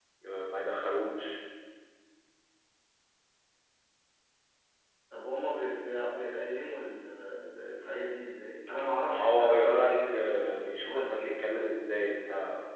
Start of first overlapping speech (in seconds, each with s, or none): 9.1 s